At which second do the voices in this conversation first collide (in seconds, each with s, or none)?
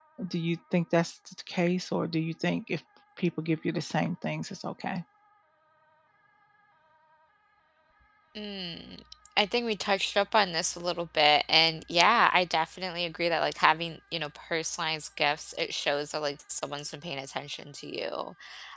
none